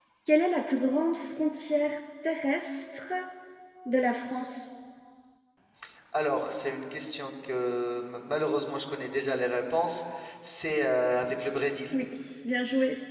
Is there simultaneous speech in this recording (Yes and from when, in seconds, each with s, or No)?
No